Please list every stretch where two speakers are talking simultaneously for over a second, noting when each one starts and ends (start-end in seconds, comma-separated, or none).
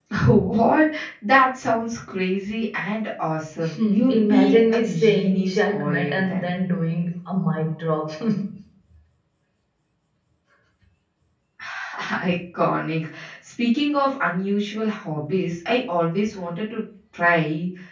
3.6-6.5